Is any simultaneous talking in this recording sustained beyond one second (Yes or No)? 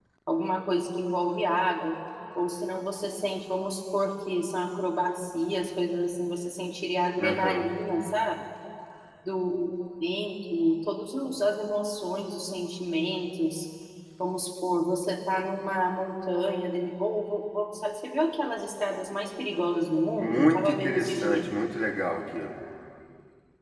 Yes